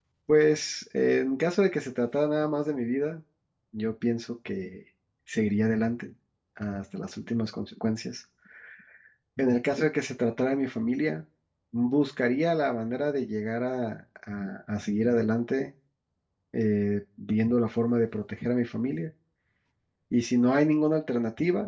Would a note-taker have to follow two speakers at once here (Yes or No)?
No